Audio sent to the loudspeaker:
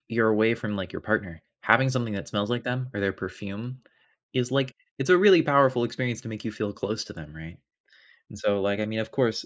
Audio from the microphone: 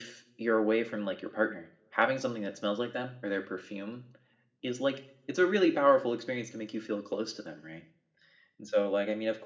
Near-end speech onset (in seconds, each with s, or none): none